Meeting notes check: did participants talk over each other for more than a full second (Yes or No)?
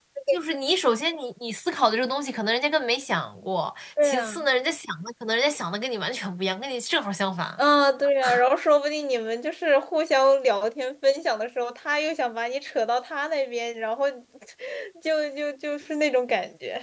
No